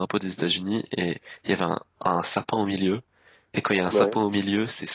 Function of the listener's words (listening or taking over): listening